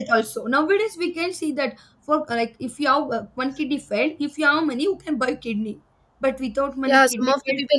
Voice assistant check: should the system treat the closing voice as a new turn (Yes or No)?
Yes